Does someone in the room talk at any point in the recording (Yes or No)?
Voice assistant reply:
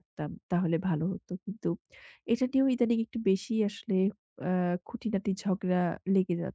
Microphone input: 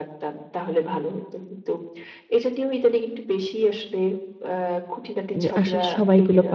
Yes